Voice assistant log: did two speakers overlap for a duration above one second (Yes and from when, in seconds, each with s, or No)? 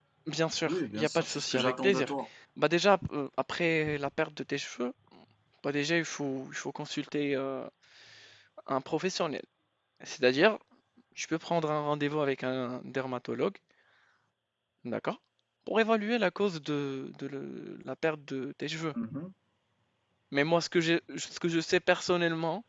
Yes, from 0.6 s